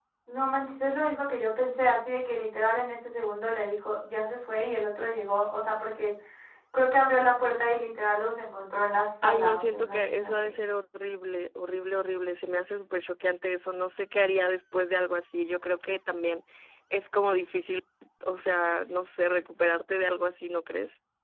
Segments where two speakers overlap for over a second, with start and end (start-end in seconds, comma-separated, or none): 9.2-10.5